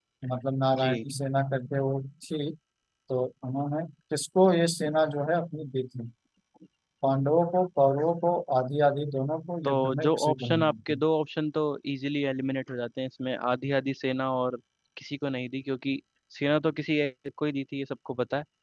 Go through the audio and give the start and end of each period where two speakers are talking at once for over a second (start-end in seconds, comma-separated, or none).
9.6-11.0